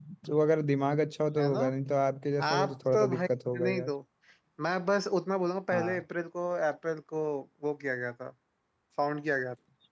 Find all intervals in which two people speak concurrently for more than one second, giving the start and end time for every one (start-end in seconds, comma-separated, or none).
2.5-3.9